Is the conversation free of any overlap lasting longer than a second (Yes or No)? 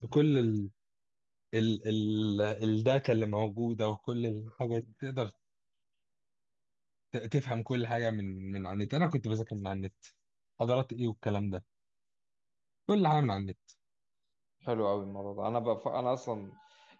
Yes